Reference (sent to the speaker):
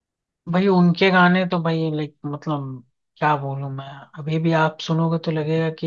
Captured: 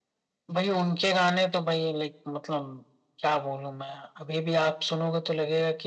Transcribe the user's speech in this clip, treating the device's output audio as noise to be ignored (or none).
none